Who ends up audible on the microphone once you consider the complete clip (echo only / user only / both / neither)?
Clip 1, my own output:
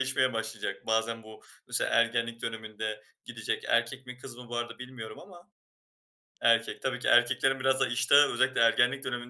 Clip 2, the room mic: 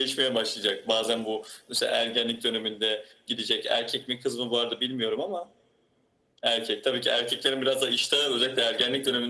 echo only